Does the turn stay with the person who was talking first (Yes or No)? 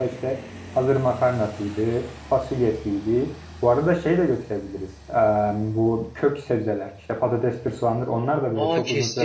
No